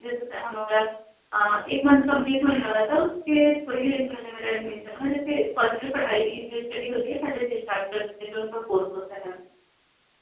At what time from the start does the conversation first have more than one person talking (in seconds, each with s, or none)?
none